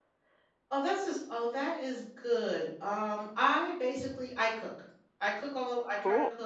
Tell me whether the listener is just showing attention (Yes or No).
Yes